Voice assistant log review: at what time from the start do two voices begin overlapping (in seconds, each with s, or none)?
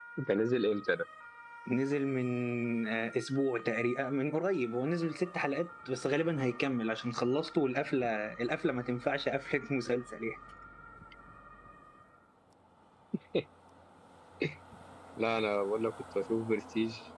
none